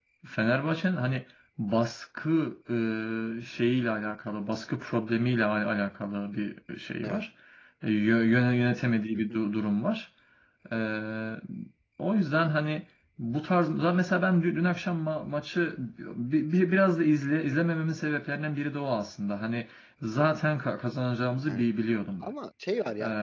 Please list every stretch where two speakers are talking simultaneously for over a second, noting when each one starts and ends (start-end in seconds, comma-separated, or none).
none